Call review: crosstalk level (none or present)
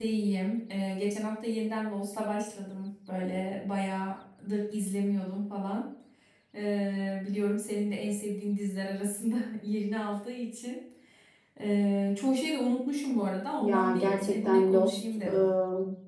present